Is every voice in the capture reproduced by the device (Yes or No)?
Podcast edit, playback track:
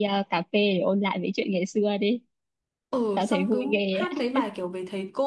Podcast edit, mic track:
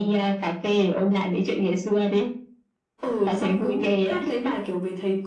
Yes